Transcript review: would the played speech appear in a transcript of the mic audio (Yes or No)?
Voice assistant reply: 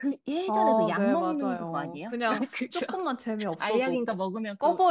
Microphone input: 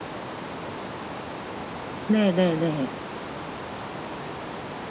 No